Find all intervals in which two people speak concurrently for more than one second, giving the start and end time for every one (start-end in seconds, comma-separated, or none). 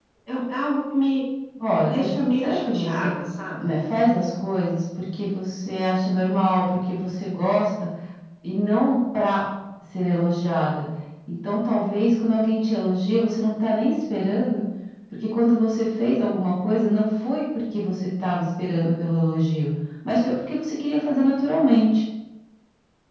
1.8-3.1